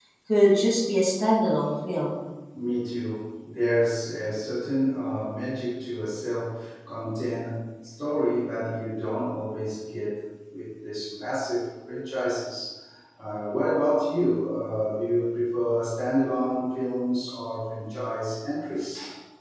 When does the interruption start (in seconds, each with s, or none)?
none